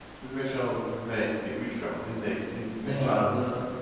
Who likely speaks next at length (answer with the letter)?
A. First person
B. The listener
B